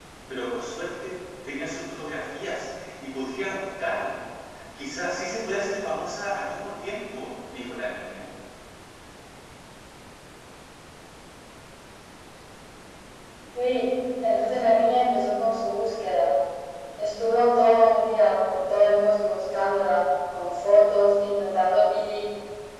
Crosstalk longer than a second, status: none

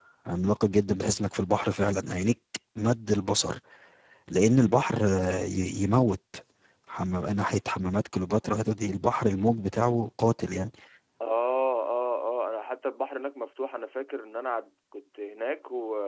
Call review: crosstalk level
none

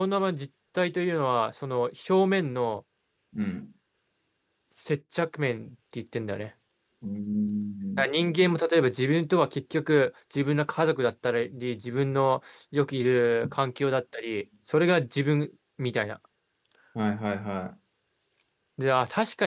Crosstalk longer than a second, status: none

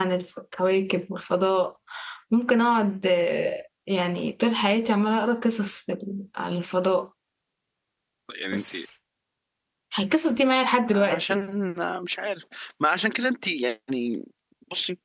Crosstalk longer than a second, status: none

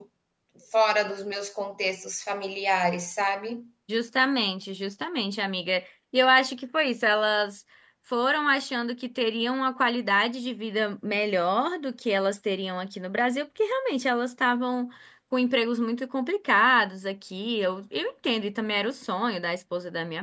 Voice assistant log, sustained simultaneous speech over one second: none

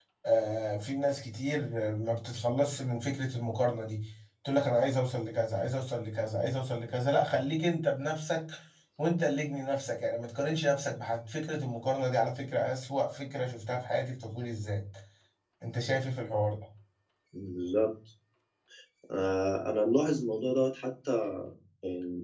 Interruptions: none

